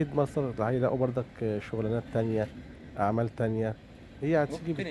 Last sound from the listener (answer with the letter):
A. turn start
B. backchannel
A